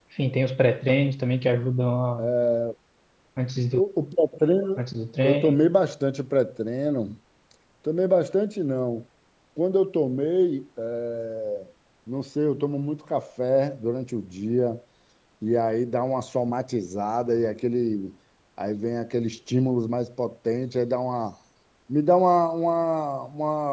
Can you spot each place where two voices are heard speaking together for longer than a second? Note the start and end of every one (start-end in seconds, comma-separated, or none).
none